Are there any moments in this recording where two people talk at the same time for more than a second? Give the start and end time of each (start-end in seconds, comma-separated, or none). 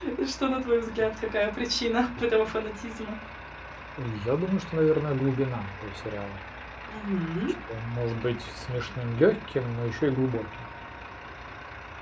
none